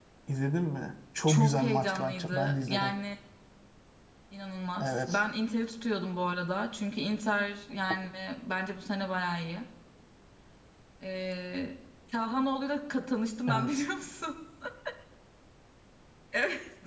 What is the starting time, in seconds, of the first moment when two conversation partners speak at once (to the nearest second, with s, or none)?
1 s